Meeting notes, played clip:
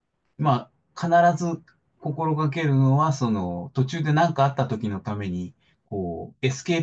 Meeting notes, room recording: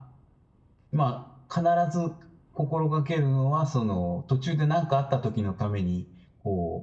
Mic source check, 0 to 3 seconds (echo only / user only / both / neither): echo only